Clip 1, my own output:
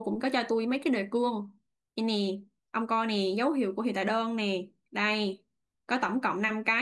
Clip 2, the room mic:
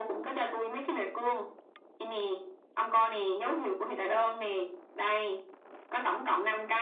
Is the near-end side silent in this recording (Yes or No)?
Yes